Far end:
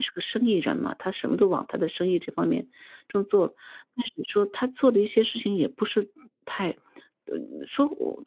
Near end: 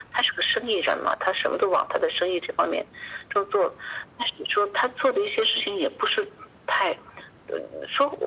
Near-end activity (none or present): none